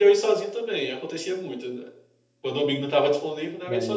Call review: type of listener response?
taking over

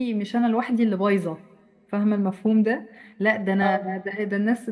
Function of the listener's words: listening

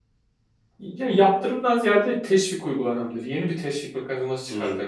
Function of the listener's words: listening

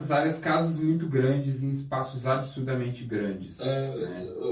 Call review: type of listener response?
taking over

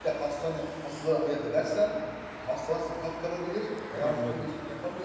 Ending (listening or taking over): listening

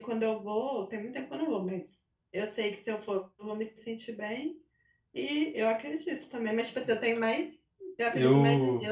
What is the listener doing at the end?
listening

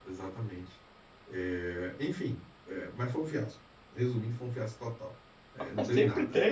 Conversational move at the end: taking over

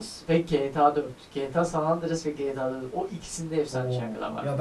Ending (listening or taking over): taking over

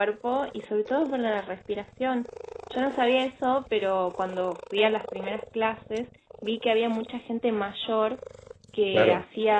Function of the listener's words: listening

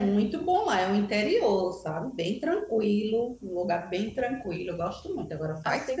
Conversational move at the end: taking over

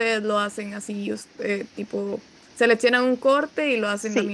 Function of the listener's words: taking over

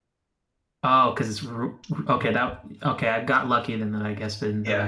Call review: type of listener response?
taking over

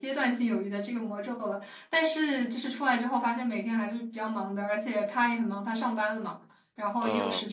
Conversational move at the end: listening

